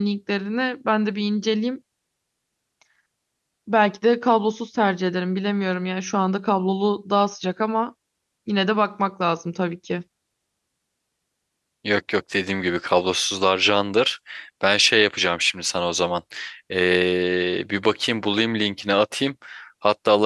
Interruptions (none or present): none